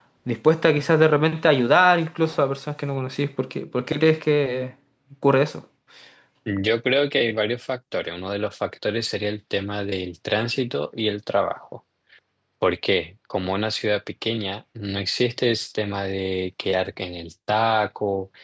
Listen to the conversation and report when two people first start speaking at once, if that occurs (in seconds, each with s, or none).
none